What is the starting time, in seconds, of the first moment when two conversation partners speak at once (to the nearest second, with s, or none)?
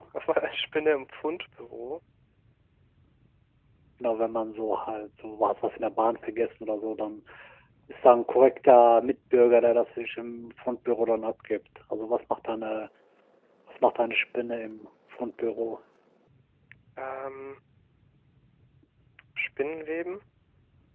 none